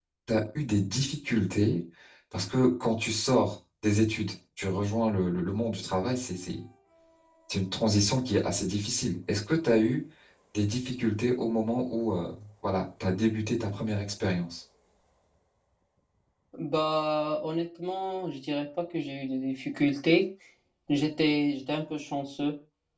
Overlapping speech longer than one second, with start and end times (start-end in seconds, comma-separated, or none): none